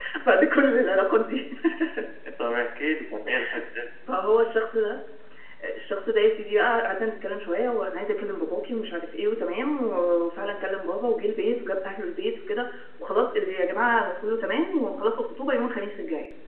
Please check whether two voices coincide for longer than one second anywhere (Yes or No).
No